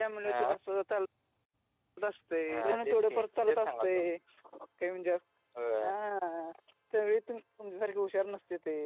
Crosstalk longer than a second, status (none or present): present